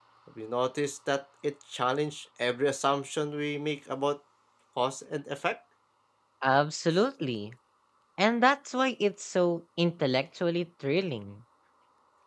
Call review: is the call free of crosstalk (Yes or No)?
Yes